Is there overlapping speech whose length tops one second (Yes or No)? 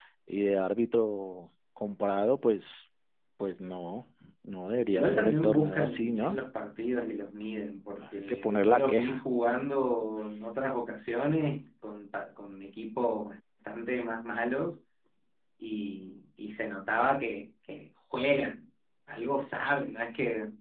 Yes